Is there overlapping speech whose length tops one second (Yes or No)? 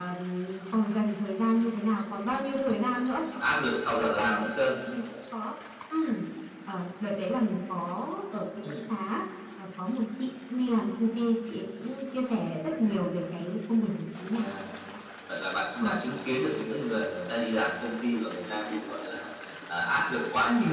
No